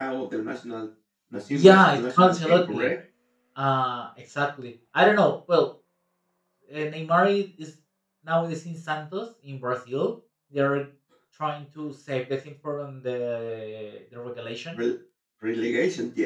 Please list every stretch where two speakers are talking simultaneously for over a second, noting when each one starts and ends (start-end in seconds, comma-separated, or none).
1.5-2.9